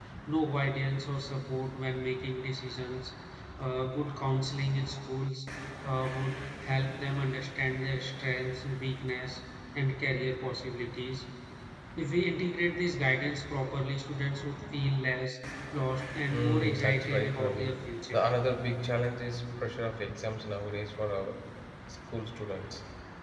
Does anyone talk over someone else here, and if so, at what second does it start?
16.3 s

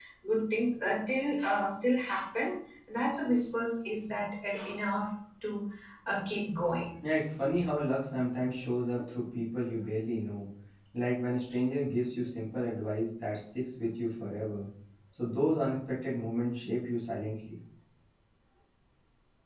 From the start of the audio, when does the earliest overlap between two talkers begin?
none

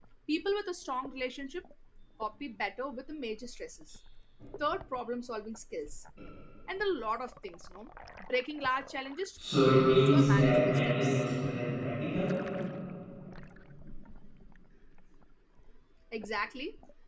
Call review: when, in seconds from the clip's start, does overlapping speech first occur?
9.9 s

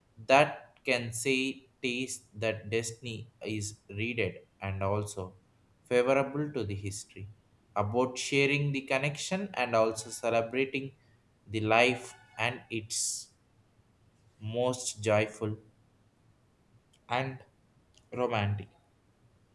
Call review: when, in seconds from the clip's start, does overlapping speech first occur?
none

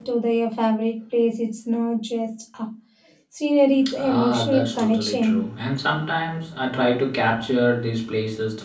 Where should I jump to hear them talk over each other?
4.0 s

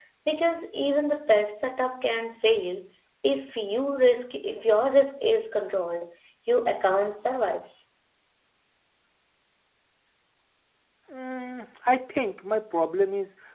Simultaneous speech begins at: none

